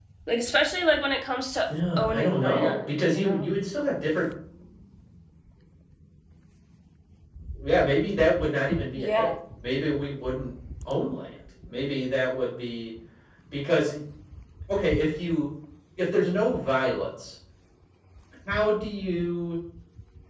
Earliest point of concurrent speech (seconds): 2.0 s

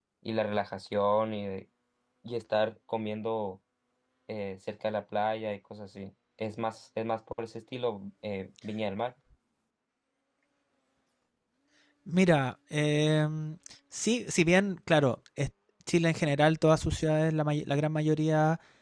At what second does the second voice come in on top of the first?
none

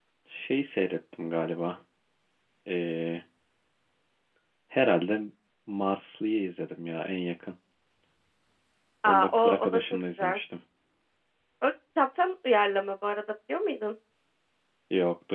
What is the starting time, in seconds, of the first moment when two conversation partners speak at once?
9.1 s

